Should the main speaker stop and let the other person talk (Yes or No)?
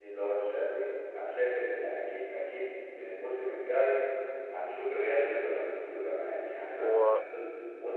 No